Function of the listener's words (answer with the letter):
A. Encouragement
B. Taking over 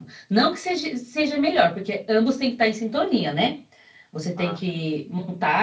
A